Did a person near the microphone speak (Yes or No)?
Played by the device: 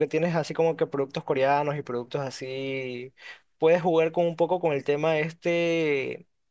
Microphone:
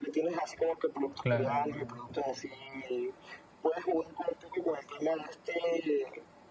Yes